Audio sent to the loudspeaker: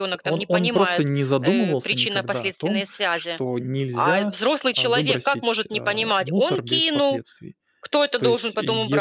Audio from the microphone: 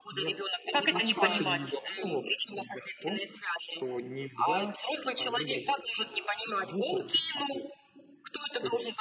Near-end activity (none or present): present